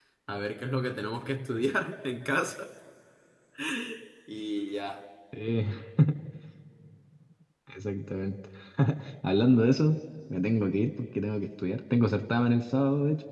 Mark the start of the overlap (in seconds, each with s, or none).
none